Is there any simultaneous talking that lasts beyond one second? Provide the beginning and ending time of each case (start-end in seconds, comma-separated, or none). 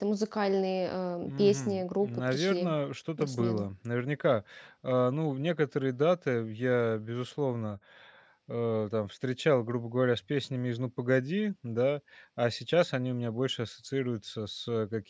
1.2-2.7